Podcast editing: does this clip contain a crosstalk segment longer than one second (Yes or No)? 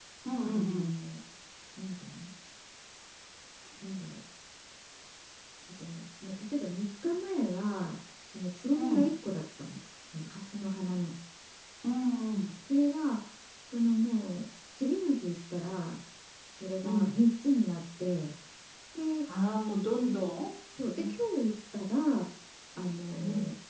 No